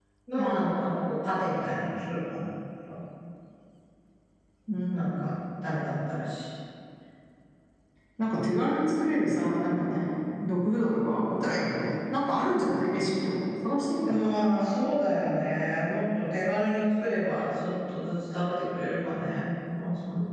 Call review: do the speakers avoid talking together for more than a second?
Yes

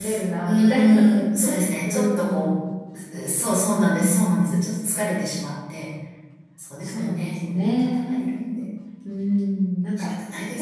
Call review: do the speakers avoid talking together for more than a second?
No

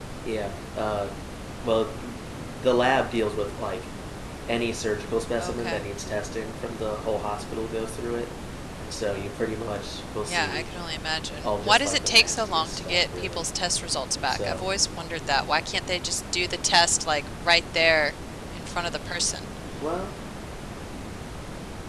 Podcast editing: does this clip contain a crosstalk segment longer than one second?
Yes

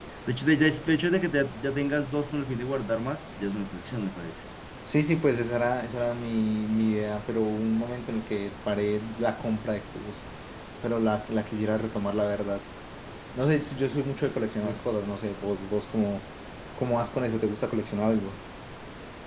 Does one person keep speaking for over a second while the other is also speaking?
No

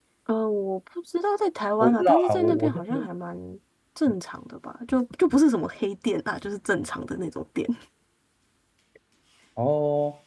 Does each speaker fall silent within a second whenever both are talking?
No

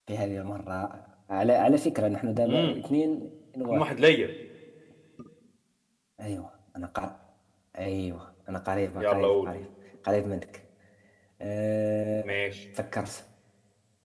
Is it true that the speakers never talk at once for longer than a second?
Yes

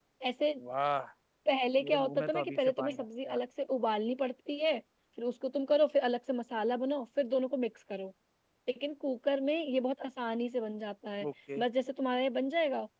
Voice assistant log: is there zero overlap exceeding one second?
No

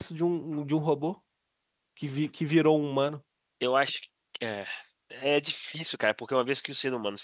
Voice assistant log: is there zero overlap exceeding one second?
Yes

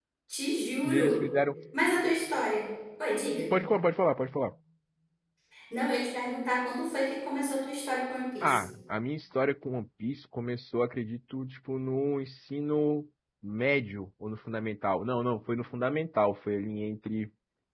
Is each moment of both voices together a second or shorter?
Yes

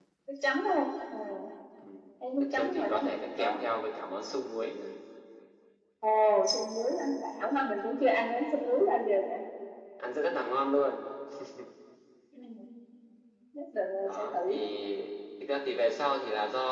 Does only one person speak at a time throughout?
No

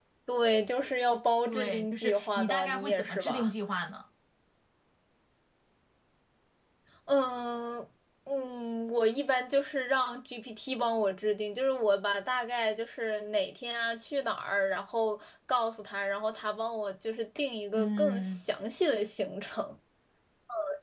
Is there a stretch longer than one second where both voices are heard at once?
Yes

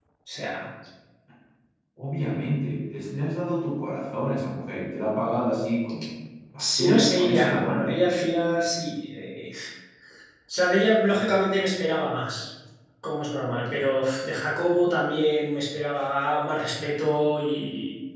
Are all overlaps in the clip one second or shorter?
No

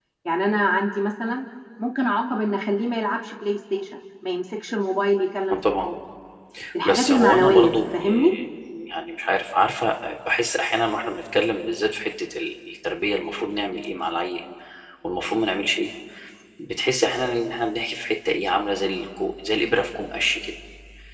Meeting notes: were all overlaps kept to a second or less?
No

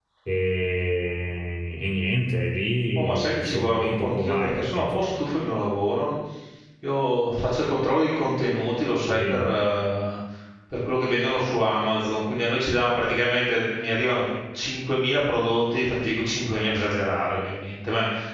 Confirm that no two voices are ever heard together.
No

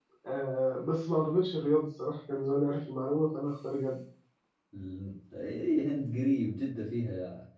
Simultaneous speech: No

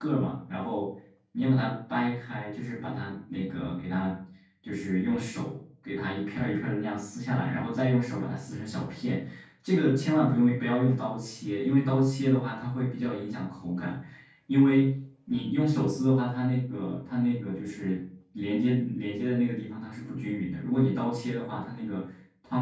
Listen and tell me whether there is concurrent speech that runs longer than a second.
No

